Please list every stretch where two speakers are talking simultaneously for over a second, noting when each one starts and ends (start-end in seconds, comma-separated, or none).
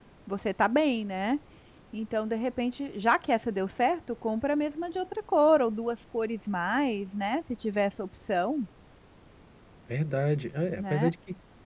none